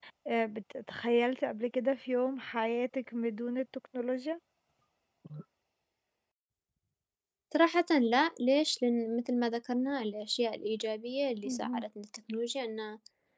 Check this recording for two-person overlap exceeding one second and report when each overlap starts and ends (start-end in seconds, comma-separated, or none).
none